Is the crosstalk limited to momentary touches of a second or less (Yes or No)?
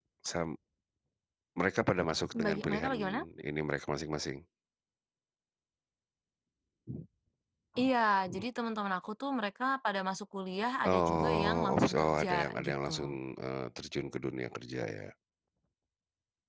No